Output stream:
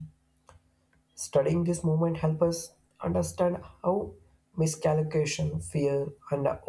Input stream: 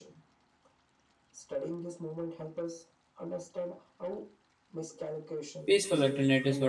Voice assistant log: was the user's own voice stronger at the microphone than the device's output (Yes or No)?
Yes